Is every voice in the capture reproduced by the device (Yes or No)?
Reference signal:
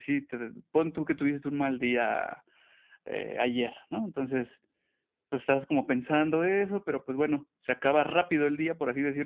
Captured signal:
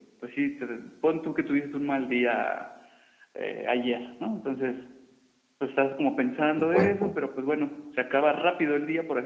No